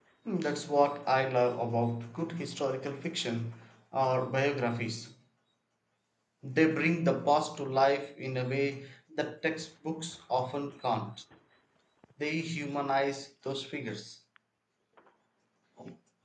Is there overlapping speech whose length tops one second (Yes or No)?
No